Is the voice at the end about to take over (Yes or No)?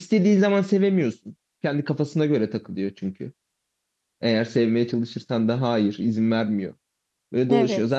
No